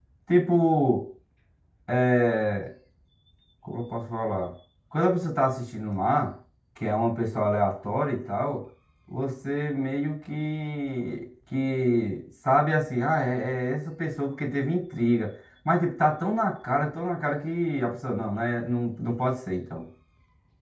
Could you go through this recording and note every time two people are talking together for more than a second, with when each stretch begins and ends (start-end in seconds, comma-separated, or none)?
none